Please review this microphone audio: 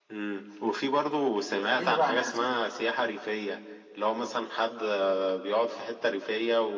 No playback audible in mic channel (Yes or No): No